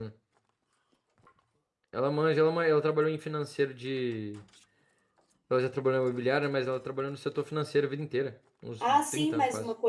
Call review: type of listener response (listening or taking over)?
taking over